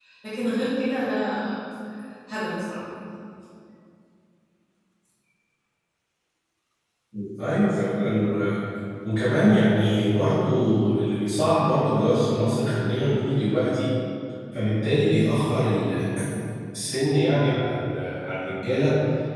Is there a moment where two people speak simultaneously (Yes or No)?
No